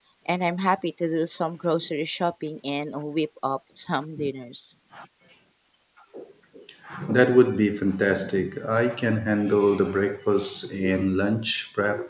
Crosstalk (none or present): none